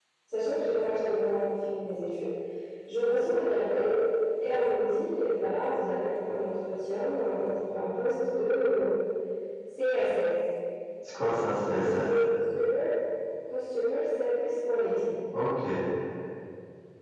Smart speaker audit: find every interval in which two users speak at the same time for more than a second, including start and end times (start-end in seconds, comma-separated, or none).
none